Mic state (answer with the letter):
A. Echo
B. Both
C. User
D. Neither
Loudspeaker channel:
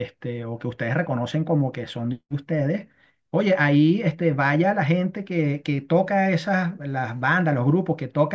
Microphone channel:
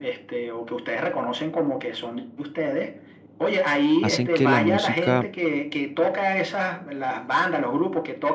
B